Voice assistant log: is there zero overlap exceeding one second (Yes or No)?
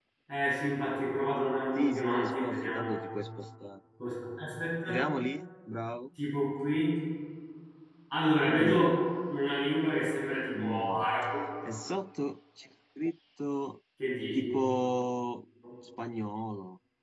No